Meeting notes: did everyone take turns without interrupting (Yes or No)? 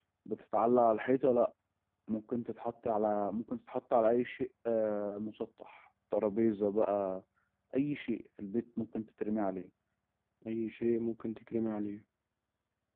Yes